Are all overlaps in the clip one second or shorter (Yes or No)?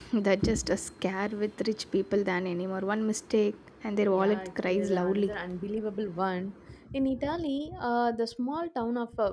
No